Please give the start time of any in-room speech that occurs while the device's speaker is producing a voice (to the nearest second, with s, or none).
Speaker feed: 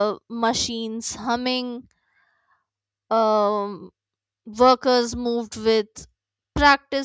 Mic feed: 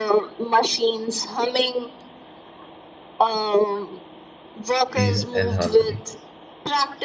5 s